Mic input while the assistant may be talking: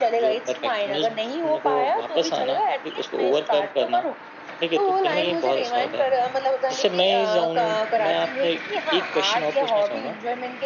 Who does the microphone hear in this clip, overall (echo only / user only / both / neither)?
echo only